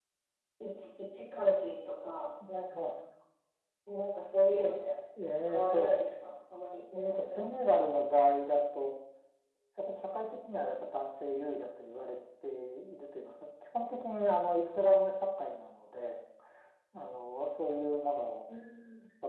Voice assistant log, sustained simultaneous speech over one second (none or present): none